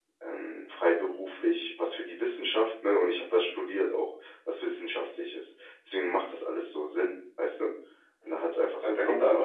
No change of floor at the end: No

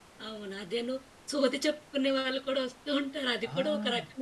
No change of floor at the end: No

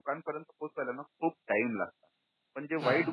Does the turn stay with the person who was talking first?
Yes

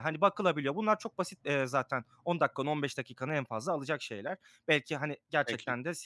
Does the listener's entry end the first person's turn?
No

